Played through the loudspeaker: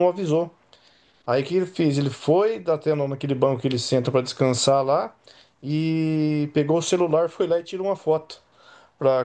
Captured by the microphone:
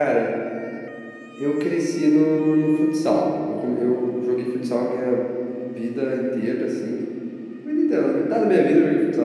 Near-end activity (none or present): present